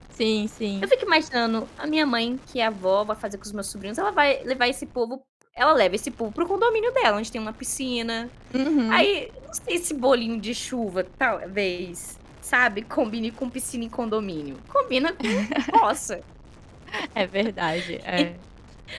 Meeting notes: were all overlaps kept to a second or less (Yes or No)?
Yes